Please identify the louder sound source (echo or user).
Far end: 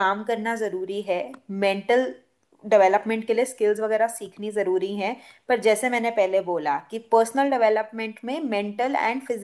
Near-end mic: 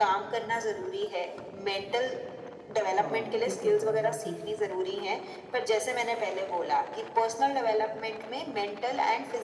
echo